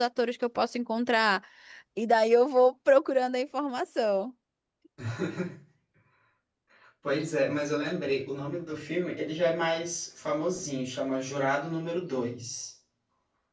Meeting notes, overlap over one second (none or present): none